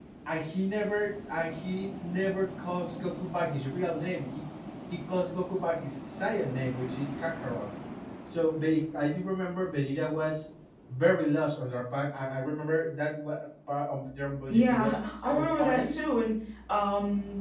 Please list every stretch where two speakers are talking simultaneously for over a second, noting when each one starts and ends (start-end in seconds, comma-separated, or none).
14.5-16.0